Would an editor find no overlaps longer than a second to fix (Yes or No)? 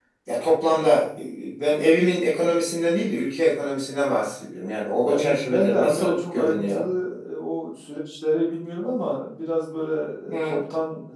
No